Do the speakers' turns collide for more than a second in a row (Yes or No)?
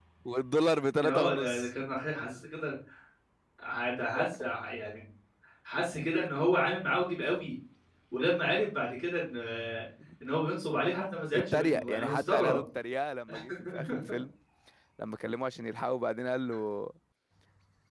Yes